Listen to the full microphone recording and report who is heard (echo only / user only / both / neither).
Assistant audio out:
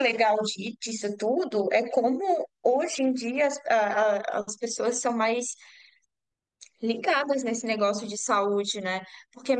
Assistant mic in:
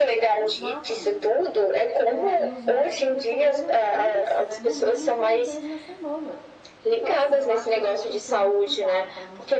both